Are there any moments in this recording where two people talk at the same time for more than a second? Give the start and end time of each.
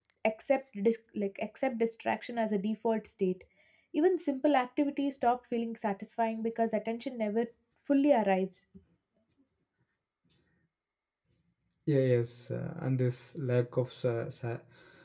none

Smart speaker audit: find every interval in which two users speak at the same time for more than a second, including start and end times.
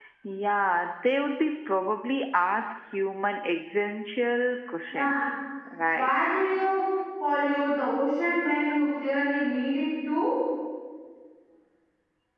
none

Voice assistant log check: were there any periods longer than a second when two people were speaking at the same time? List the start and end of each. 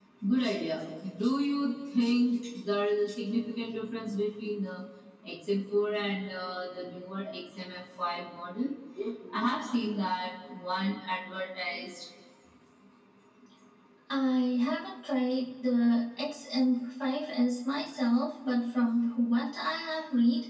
none

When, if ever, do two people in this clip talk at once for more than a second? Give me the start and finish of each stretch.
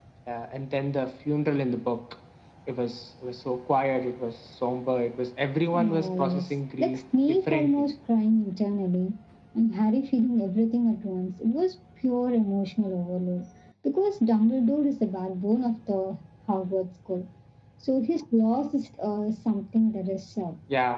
5.7-7.8

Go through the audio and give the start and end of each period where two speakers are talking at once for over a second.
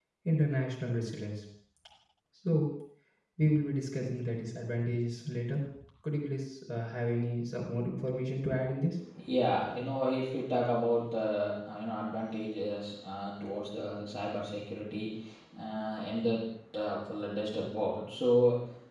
none

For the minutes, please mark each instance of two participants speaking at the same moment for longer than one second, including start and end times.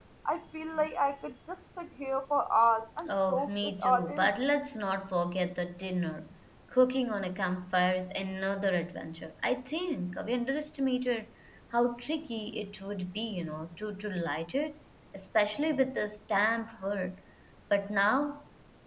3.1-4.4

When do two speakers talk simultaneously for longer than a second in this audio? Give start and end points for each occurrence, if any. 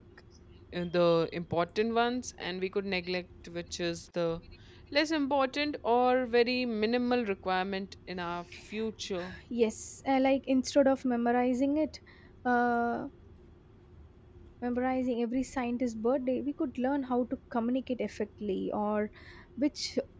none

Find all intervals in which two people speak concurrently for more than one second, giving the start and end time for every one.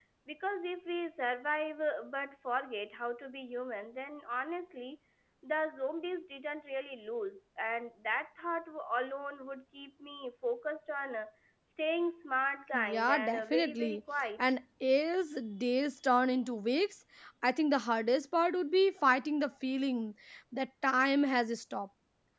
12.7-14.0

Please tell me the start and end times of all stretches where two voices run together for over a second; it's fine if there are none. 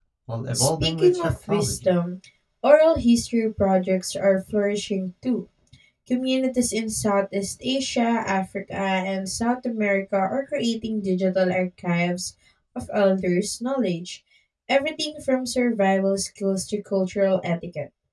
0.5-1.9

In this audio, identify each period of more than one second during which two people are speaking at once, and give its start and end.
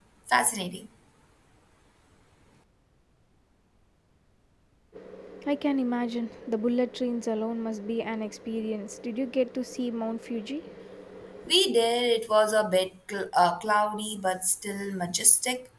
none

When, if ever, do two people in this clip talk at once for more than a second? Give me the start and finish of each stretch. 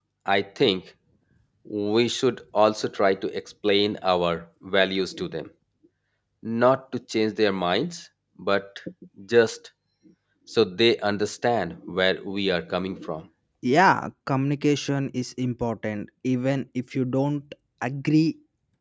none

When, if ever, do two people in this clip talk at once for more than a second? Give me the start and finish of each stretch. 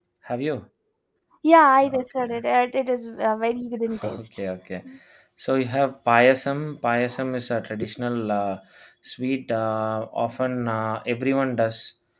none

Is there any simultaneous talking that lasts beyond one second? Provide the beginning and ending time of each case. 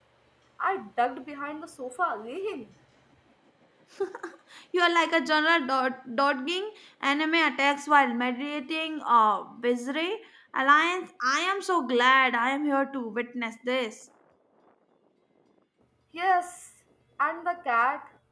none

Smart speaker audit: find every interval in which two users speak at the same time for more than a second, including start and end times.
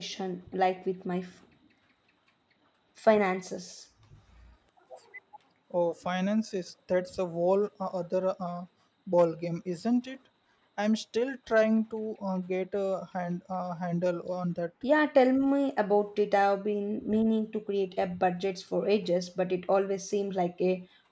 none

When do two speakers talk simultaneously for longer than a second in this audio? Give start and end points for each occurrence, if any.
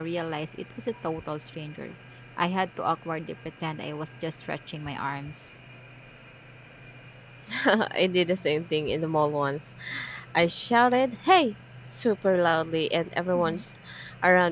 none

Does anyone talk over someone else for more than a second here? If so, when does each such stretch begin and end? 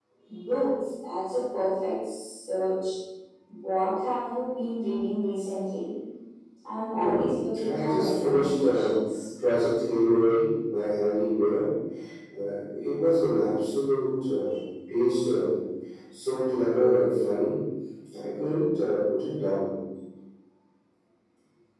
7.6-8.9

